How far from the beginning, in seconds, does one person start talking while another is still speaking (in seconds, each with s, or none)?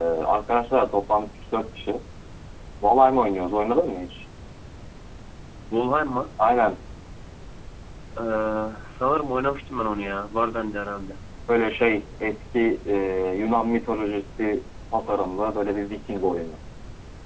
none